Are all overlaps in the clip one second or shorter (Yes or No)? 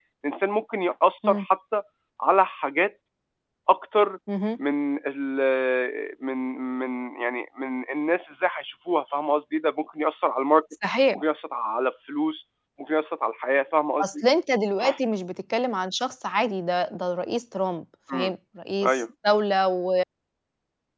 Yes